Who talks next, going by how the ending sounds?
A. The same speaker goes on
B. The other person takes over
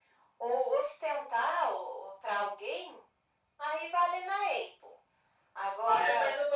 B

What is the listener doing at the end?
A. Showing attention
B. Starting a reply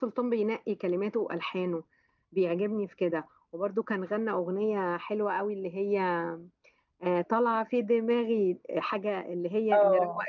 B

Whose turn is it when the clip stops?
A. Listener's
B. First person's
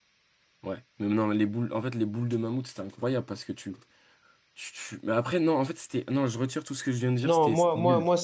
A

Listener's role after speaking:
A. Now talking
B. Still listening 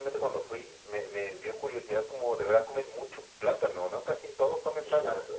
A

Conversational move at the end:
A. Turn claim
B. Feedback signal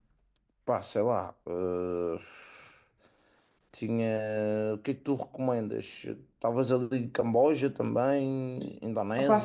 A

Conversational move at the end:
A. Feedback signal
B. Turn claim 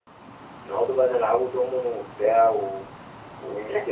A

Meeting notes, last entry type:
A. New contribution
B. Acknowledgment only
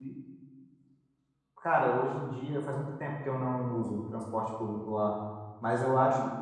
B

